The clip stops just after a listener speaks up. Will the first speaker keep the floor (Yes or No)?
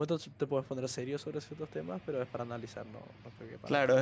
No